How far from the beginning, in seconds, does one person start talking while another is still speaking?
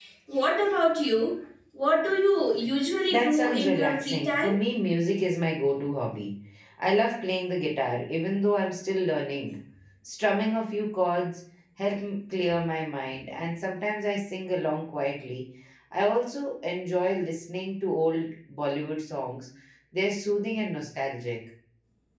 3.1 s

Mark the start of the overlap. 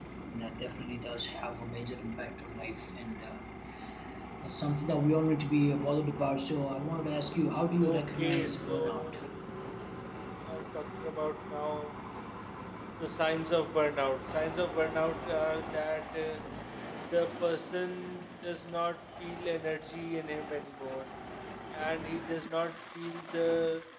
7.8 s

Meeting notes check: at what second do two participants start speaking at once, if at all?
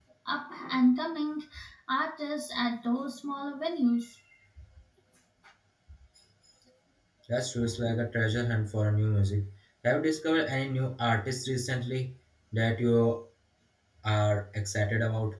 none

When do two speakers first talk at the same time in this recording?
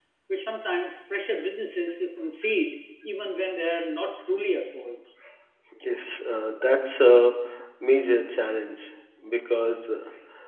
none

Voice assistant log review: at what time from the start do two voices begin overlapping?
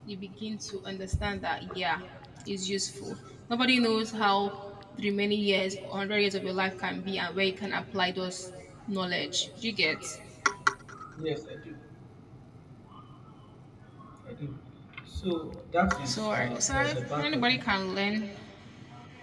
15.9 s

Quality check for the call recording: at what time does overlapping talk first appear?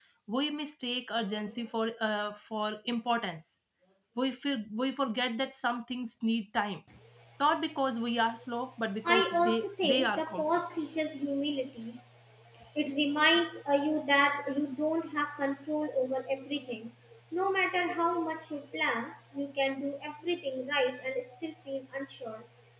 9.0 s

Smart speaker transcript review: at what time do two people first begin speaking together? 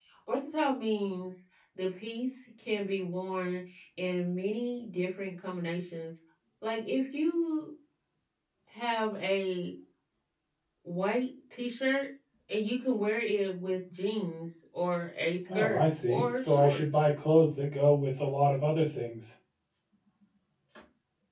15.5 s

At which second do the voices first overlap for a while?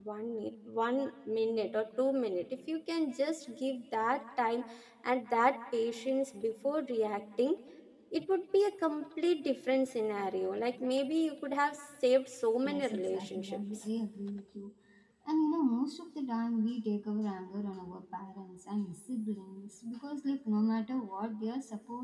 12.7 s

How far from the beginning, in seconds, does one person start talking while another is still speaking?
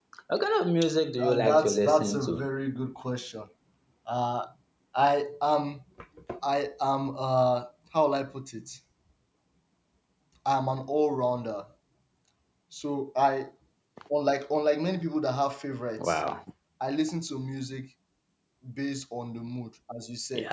1.2 s

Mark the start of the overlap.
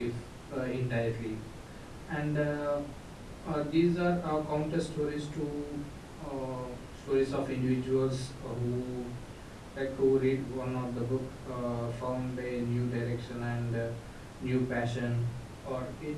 none

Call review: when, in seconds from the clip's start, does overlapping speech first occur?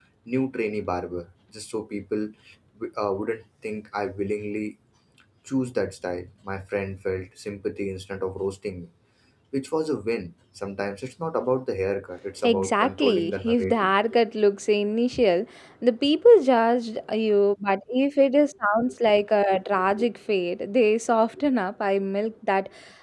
12.4 s

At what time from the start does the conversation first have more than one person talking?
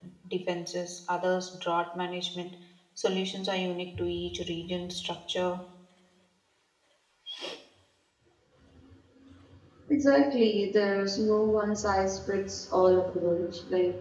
none

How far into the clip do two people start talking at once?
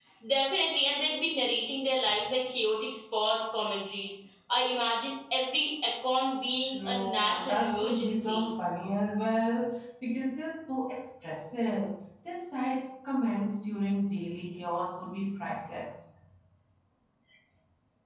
6.7 s

